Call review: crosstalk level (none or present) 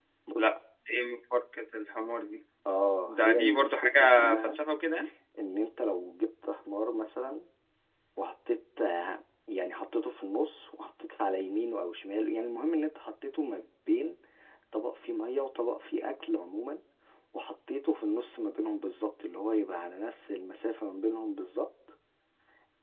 present